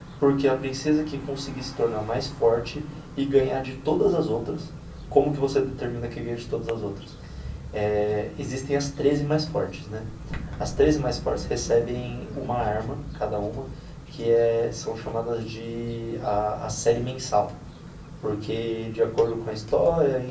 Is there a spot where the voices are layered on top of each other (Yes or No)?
No